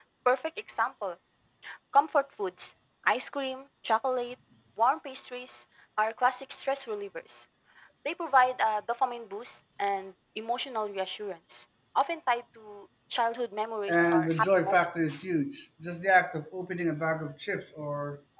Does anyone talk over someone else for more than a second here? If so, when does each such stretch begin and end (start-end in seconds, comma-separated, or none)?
13.9-15.2